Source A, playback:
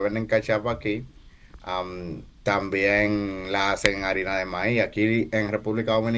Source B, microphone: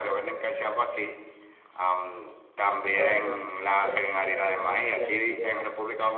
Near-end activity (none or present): present